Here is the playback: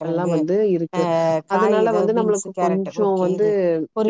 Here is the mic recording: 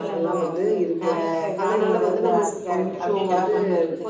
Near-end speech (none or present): present